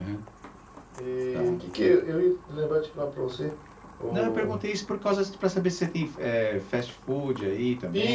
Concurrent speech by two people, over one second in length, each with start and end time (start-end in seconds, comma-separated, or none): none